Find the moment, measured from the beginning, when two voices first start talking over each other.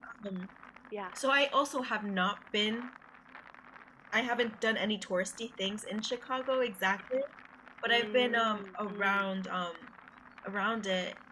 7.9 s

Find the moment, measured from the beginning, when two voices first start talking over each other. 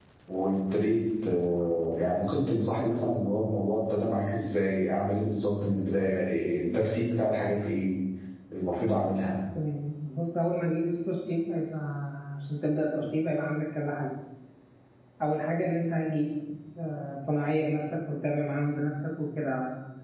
none

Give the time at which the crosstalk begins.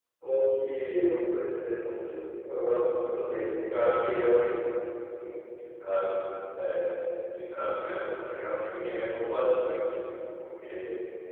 none

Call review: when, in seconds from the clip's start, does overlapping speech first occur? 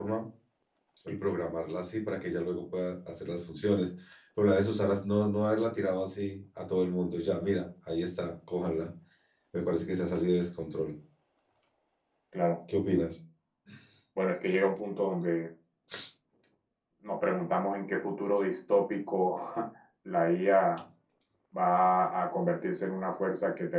none

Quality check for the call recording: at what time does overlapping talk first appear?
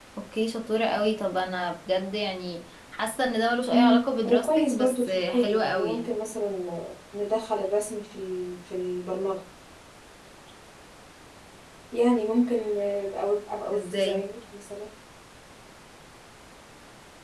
3.7 s

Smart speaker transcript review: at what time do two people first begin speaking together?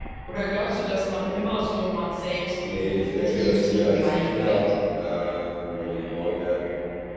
2.6 s

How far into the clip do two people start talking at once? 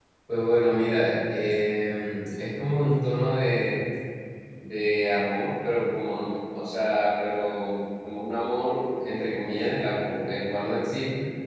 none

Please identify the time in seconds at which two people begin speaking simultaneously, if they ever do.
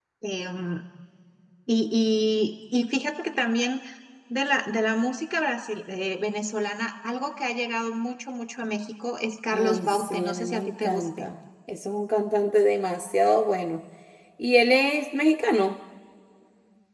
9.5 s

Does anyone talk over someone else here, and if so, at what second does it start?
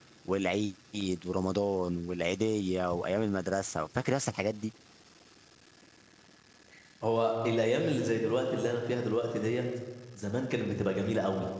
none

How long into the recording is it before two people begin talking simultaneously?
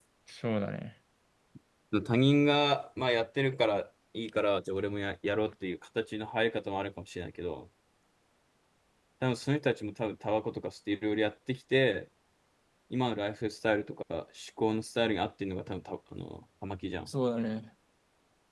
none

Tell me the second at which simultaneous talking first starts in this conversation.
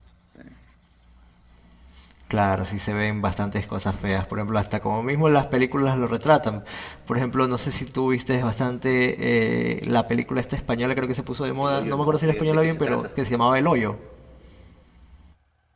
11.6 s

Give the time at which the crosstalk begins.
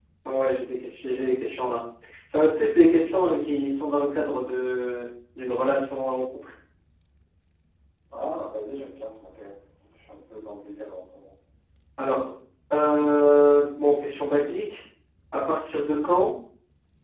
none

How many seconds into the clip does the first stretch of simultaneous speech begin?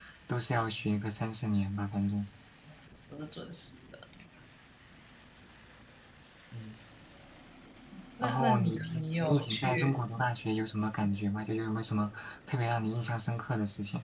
8.2 s

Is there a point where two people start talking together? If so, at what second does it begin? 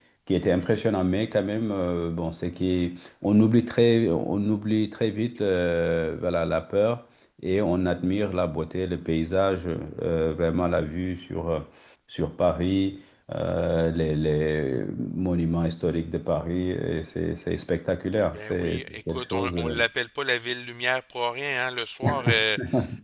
18.3 s

